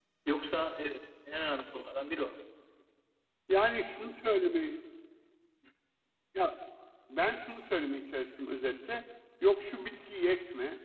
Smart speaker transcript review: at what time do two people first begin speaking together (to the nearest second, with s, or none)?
none